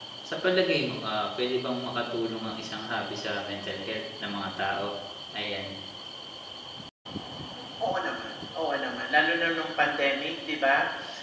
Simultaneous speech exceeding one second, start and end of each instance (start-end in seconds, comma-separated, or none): none